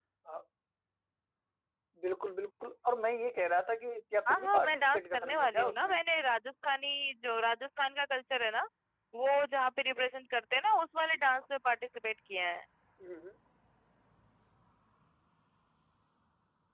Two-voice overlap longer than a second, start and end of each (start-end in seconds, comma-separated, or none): 4.3-5.9